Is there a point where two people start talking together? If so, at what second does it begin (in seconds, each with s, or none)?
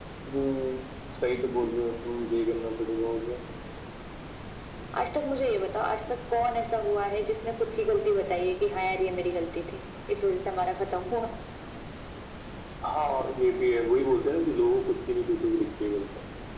none